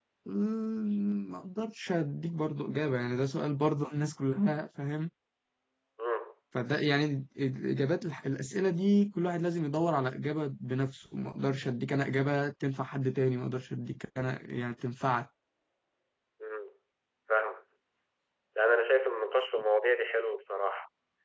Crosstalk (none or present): none